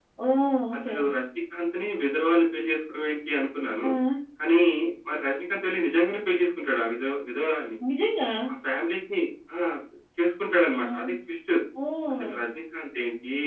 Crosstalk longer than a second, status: none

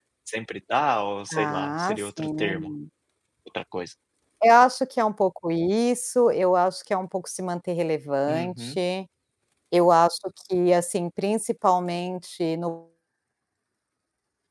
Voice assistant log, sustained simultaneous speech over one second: present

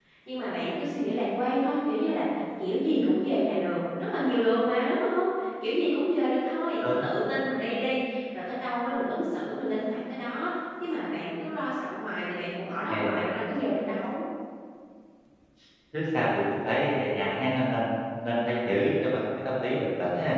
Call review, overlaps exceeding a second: none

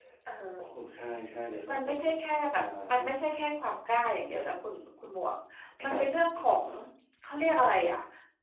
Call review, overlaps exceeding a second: none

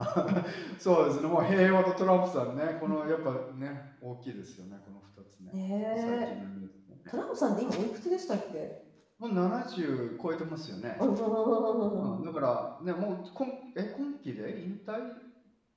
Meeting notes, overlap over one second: none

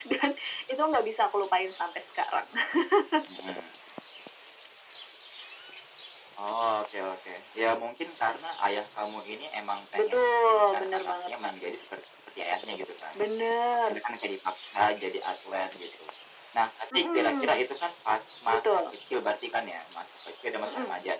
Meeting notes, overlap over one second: present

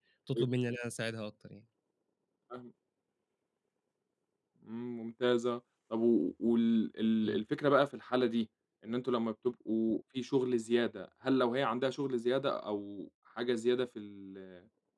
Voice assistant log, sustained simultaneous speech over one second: none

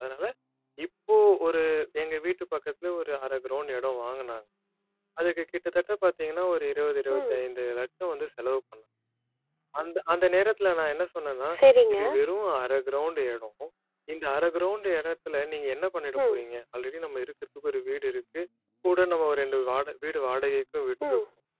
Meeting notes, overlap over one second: none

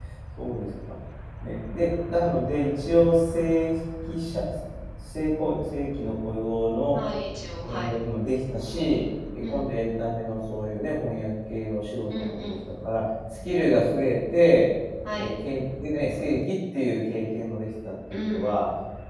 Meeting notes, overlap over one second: none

